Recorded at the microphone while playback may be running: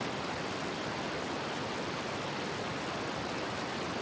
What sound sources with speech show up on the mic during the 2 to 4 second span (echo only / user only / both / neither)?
neither